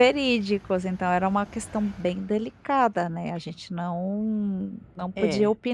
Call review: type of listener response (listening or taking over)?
listening